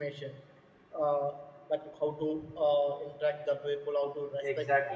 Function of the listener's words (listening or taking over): listening